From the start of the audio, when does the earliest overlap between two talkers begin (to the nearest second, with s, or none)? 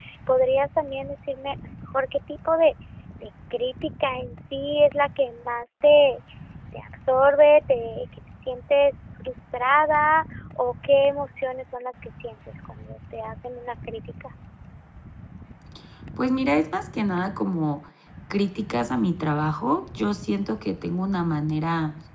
none